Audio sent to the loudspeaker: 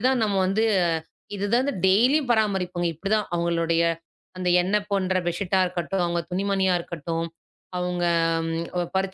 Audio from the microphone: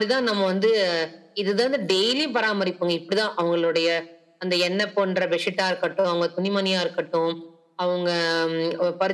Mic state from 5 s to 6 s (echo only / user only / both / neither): echo only